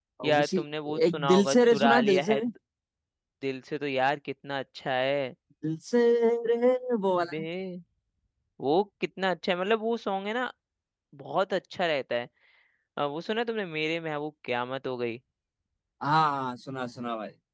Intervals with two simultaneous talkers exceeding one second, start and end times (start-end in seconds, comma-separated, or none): 1.1-2.4